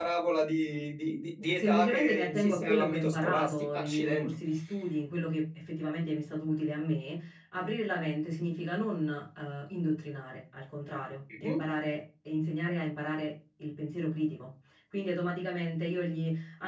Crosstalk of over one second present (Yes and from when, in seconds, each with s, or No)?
Yes, from 1.6 s